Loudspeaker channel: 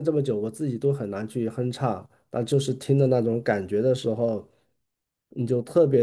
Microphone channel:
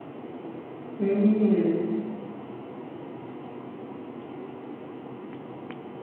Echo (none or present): none